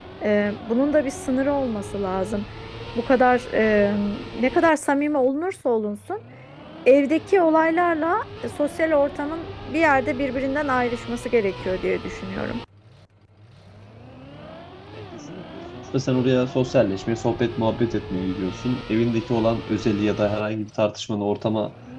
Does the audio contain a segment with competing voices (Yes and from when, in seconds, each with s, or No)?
No